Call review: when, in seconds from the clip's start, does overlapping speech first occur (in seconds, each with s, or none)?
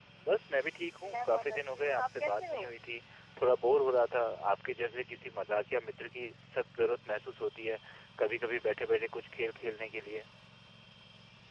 1.1 s